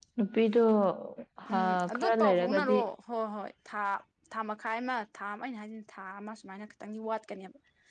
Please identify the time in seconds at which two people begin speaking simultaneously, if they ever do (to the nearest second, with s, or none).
2 s